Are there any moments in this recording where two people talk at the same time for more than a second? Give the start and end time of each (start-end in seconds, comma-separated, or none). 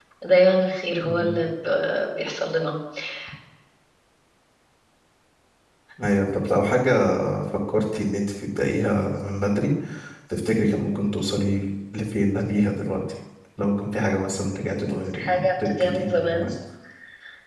15.2-16.5